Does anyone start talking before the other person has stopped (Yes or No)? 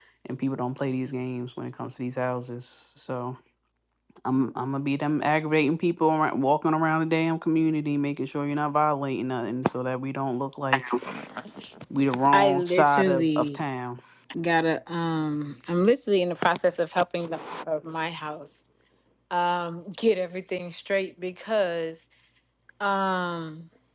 Yes